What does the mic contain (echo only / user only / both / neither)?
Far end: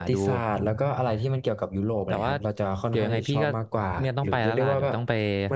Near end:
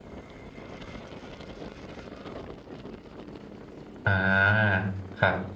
user only